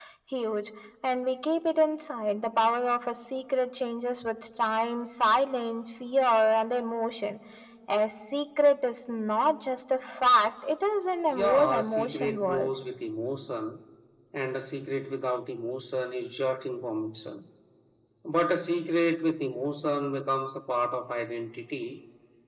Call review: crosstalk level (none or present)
present